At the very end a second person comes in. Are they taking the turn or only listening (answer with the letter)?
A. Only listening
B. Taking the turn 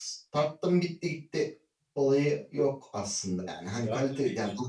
B